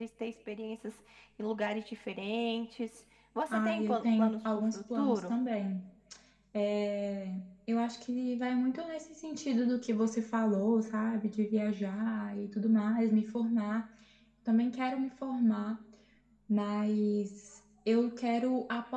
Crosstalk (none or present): present